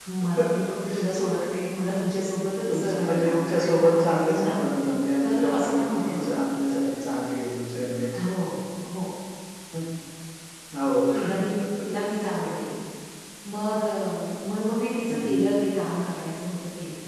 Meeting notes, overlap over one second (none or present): present